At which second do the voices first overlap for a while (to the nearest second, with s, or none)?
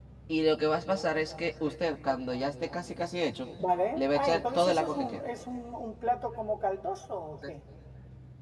4 s